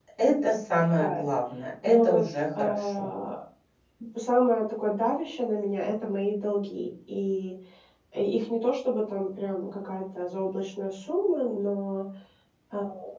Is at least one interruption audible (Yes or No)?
Yes